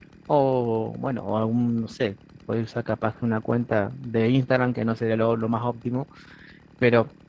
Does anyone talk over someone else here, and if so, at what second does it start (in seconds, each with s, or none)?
none